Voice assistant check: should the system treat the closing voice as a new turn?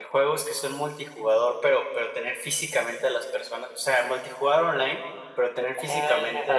No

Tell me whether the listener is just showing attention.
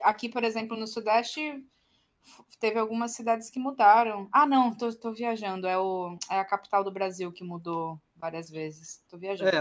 No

